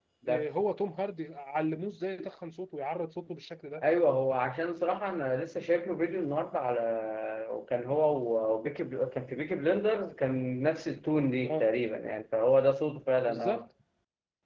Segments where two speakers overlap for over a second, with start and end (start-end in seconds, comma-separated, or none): none